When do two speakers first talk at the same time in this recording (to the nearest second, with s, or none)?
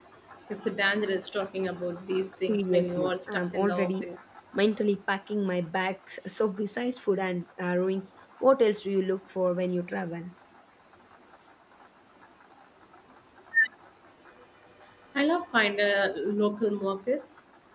2 s